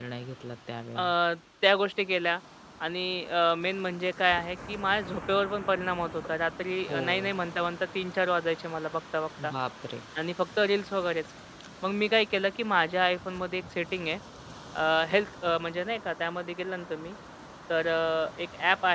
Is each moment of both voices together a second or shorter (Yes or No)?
Yes